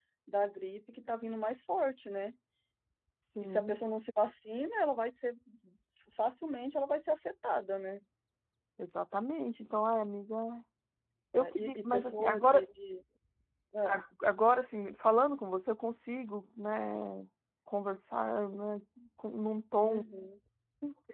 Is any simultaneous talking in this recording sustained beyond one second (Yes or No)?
Yes